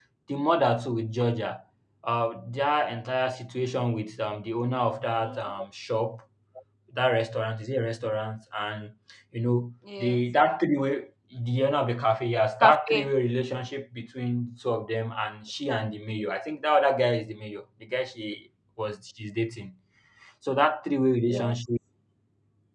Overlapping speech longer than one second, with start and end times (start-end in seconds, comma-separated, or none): none